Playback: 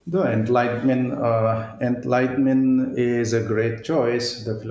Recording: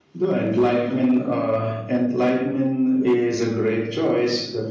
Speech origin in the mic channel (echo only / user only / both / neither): echo only